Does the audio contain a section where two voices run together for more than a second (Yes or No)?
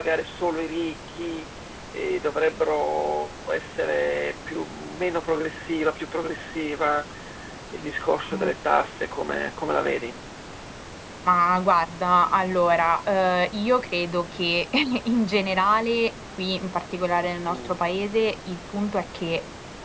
No